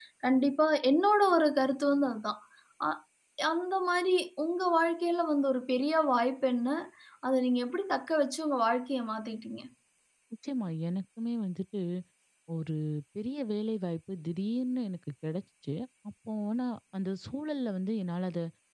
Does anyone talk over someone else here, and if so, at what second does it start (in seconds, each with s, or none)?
none